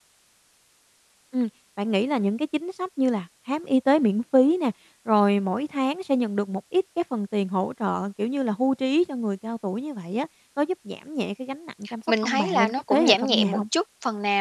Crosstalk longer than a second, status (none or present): present